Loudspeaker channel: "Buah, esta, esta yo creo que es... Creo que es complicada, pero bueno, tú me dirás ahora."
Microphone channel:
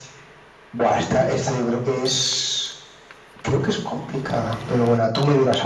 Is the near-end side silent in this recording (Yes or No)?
No